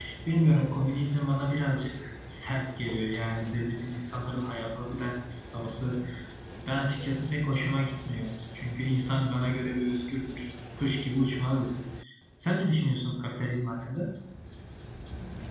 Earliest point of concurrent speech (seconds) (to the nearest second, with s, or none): none